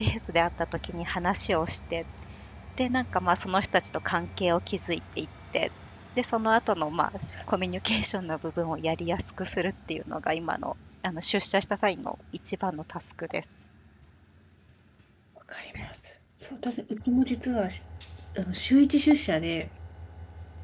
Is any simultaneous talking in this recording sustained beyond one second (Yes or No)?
No